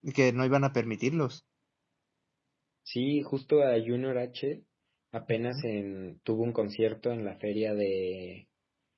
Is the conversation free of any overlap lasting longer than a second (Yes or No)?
Yes